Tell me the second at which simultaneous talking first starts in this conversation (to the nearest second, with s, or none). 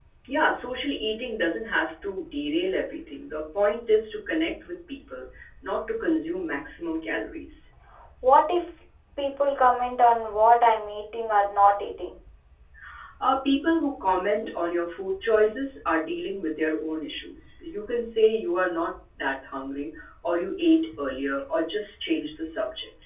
none